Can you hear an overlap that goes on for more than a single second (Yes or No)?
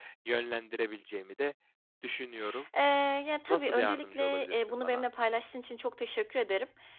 Yes